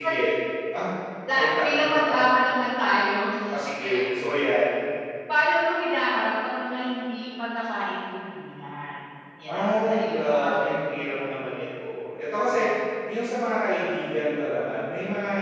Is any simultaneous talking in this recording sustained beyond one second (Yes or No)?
Yes